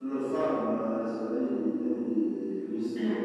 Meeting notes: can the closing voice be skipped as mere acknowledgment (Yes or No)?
Yes